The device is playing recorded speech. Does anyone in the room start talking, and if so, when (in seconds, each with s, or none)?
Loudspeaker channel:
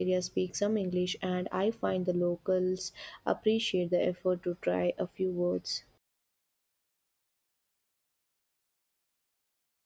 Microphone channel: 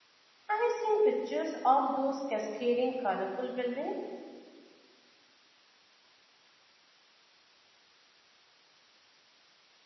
0.5 s